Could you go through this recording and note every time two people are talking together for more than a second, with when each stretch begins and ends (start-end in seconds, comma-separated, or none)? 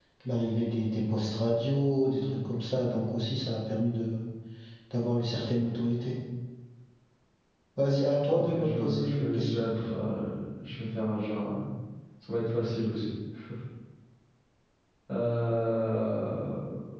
8.3-9.7